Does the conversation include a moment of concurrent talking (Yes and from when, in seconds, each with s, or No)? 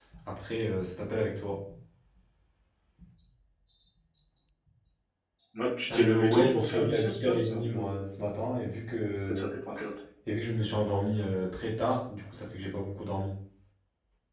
Yes, from 5.9 s